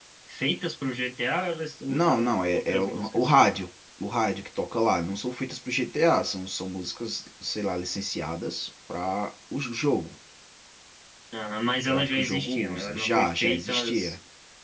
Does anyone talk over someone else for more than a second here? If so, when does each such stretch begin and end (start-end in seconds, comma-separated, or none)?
1.9-3.3, 11.9-14.1